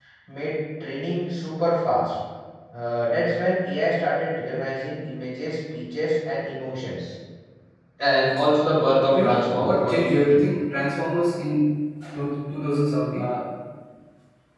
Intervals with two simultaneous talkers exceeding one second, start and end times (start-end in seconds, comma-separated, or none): 9.1-10.4